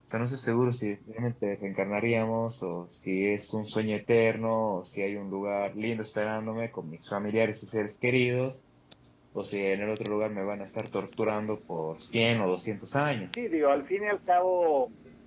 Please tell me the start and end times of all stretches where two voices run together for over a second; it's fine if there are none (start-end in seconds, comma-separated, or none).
none